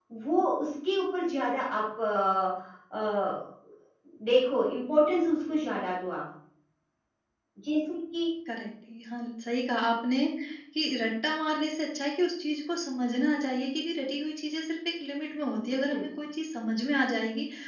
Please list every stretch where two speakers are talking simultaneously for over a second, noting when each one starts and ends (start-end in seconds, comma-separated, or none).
none